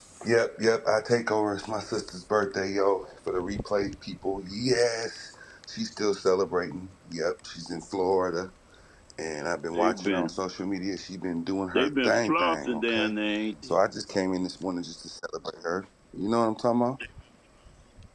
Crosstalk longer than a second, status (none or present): present